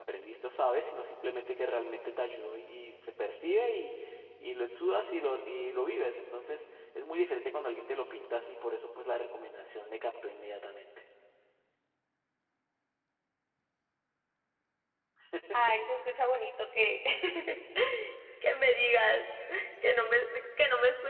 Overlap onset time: none

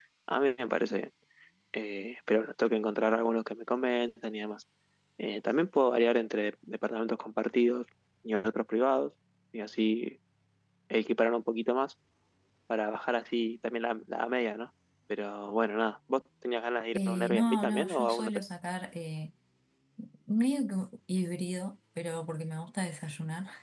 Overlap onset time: 17 s

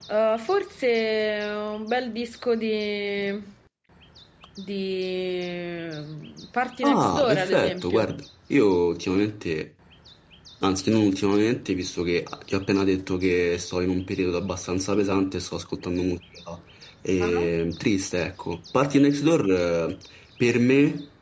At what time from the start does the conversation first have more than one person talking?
7 s

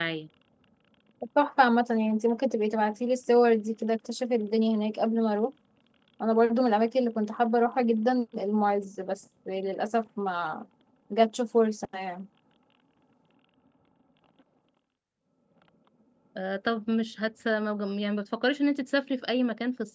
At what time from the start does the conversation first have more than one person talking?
none

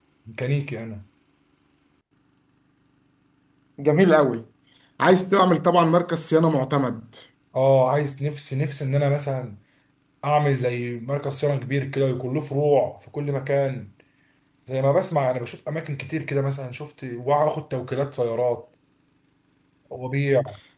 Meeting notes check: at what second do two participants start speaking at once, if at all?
none

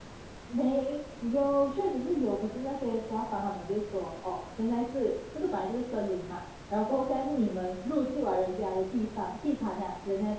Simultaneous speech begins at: none

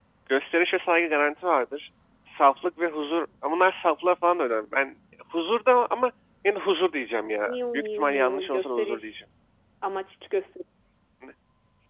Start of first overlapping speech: 7 s

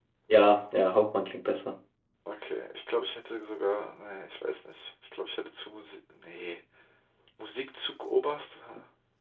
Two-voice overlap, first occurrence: none

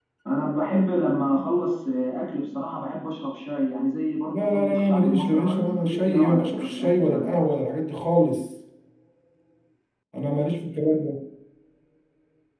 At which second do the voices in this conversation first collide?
4 s

